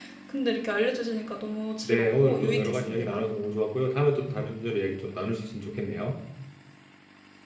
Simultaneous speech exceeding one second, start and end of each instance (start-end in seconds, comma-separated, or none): 1.8-3.2